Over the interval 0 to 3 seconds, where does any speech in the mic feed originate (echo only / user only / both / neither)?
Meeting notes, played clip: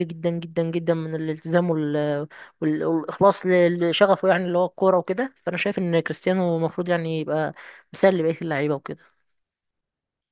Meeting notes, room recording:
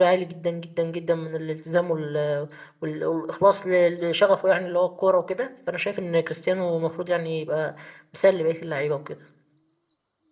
echo only